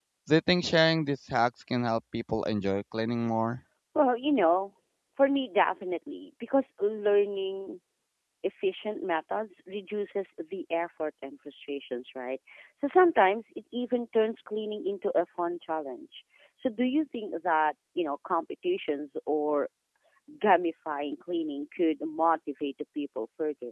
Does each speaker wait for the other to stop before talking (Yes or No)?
Yes